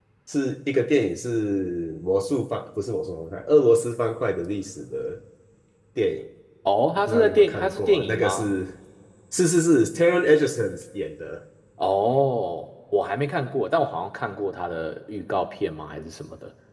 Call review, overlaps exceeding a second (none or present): present